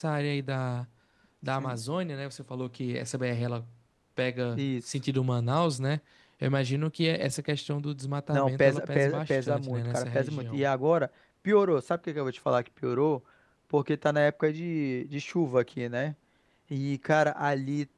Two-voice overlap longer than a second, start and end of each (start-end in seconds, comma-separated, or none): 8.3-10.7